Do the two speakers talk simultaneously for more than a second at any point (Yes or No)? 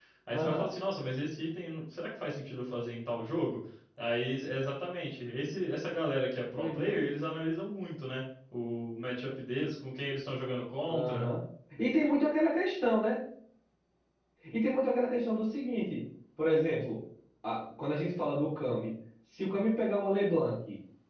No